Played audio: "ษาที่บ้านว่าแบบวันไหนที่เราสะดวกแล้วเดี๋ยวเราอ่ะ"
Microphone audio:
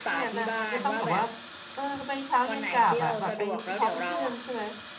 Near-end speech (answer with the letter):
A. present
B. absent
A